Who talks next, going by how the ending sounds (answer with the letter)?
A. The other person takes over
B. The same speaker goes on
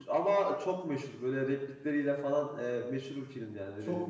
B